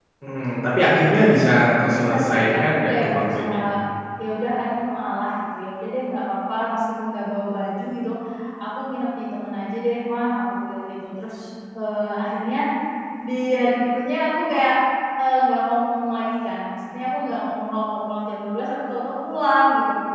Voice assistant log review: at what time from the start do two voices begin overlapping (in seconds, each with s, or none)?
1.9 s